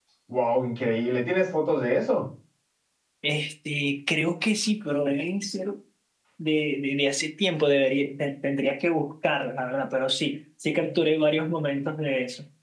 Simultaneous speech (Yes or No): No